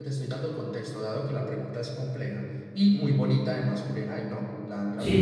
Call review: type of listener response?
taking over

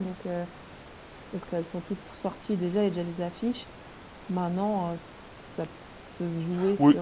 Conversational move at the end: taking over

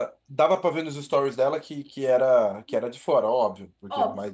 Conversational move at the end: taking over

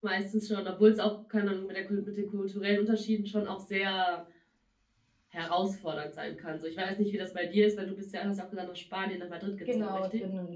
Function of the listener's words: taking over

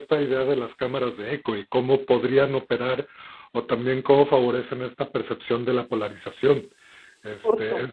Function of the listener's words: listening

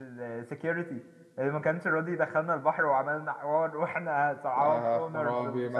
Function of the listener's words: taking over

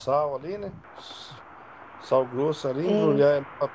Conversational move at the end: listening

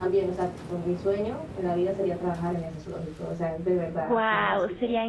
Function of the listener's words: taking over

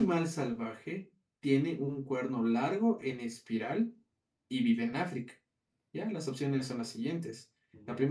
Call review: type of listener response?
listening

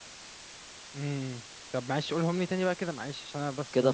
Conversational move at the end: taking over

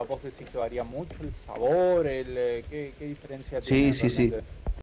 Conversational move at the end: taking over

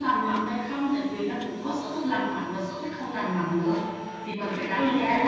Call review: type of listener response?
listening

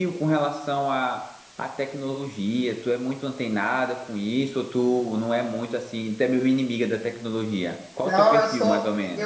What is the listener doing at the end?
taking over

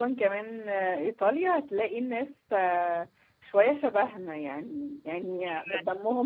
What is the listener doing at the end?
listening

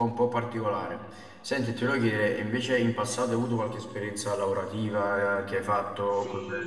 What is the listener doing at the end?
taking over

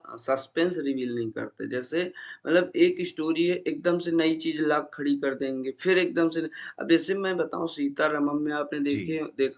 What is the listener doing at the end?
listening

